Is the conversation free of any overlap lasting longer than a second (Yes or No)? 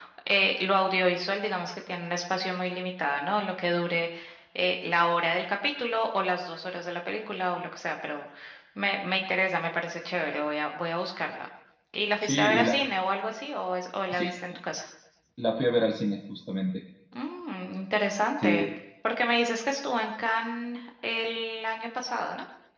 Yes